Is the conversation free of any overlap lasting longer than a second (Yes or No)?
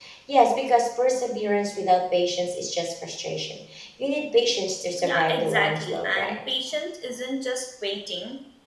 No